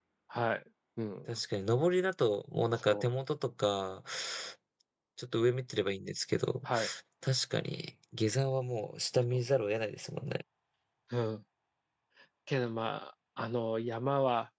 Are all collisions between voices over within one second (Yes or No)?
Yes